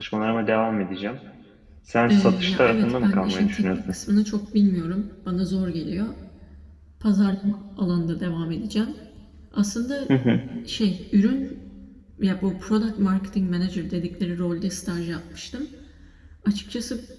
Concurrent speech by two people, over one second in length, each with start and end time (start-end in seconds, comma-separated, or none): 2.1-3.8